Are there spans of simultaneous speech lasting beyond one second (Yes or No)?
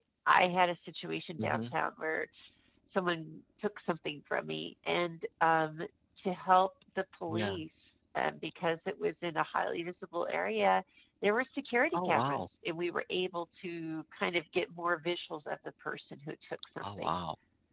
No